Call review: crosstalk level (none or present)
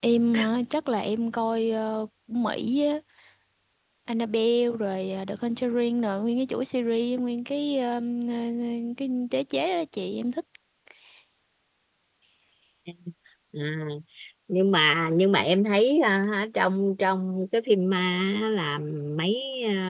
none